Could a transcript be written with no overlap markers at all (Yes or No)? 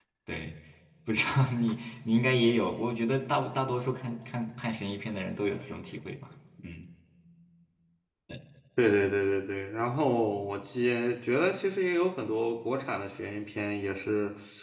Yes